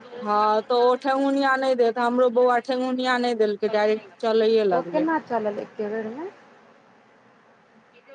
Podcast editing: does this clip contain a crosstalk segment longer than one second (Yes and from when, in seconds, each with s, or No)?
No